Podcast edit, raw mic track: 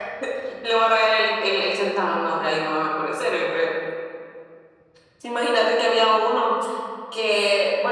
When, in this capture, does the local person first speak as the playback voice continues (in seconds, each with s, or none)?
none